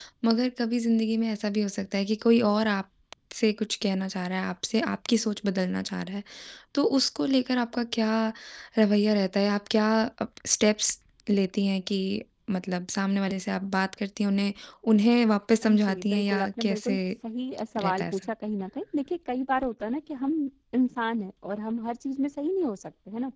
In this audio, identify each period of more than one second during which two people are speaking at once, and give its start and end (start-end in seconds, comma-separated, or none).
15.6-17.0